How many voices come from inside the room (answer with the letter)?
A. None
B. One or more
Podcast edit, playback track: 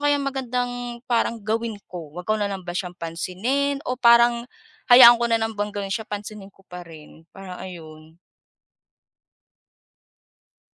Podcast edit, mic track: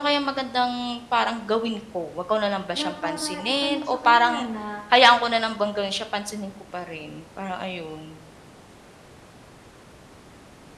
B